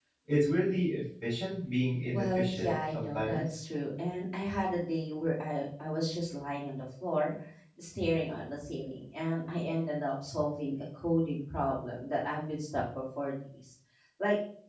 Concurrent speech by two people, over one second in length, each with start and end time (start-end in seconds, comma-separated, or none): 2.1-3.4